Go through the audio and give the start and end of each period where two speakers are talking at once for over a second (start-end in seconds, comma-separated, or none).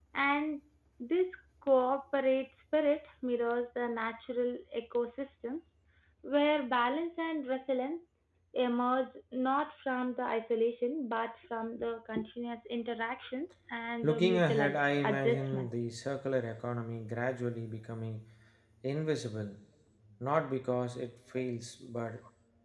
14.0-15.9